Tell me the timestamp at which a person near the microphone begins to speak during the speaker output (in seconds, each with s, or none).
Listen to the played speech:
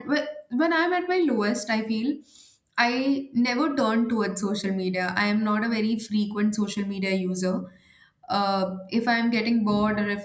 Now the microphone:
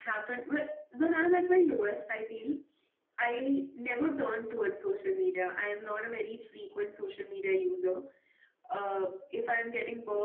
none